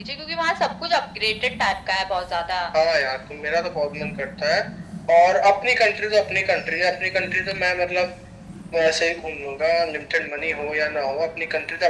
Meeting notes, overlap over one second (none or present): none